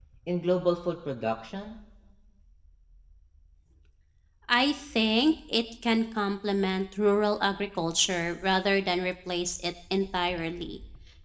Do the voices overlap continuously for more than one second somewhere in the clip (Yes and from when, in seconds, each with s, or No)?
No